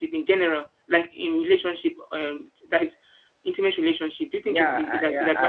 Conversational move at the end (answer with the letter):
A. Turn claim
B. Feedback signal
A